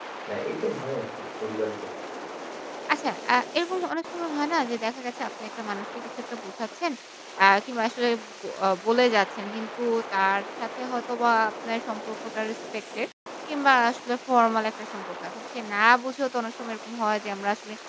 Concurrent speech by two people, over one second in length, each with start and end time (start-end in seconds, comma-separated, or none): none